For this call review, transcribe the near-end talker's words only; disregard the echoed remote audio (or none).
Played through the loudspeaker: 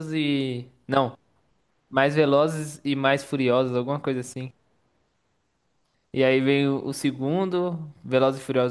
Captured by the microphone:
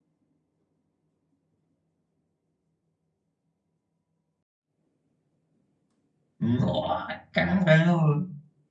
Nossa, caramba,